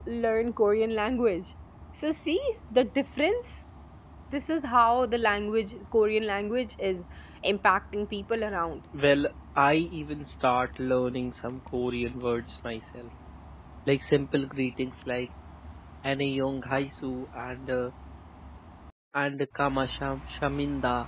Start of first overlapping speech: none

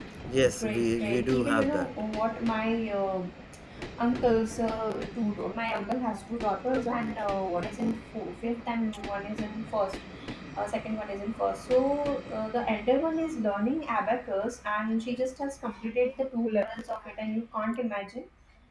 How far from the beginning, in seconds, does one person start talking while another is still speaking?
0.6 s

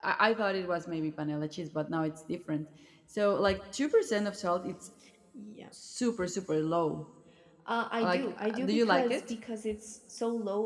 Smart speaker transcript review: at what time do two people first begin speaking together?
8.0 s

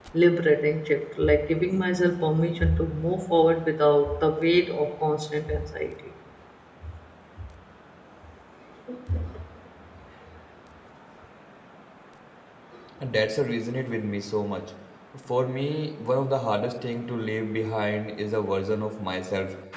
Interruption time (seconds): none

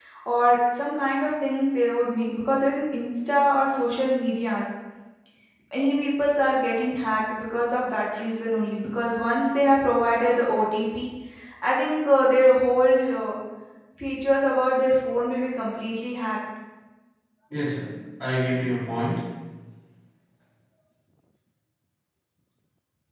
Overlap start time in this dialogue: none

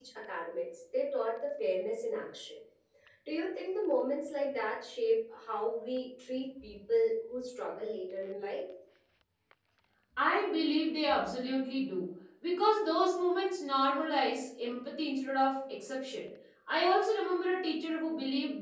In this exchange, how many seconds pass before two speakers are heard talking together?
none

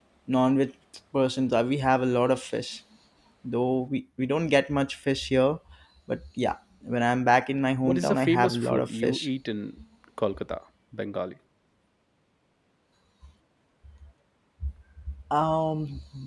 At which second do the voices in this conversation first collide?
7.8 s

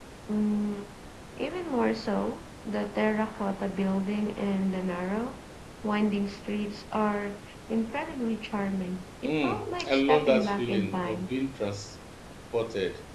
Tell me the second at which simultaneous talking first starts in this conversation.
9.2 s

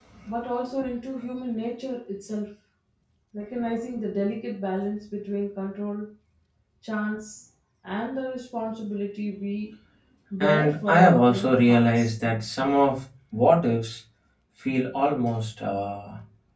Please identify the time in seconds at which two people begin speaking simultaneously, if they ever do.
10.4 s

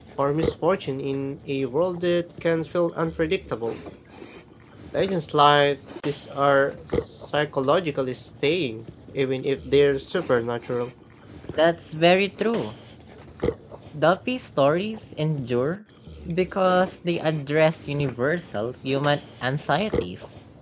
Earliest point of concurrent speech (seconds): none

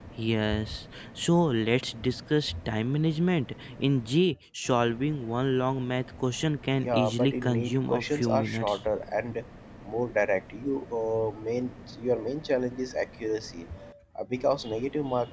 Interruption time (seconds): 6.8 s

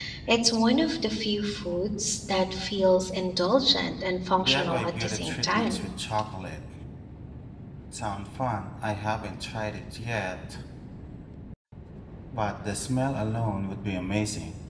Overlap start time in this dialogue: 4.4 s

